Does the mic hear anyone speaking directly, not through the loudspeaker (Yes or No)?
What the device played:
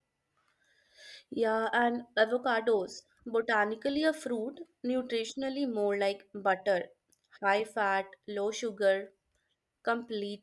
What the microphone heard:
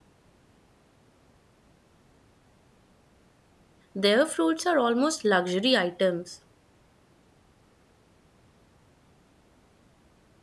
Yes